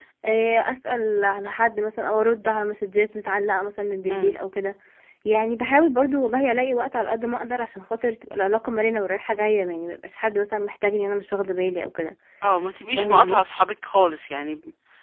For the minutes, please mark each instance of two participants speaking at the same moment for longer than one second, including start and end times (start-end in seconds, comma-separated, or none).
none